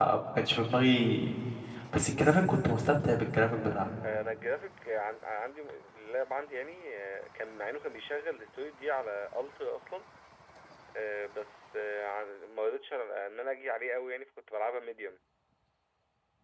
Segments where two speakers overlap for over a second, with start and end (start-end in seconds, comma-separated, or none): none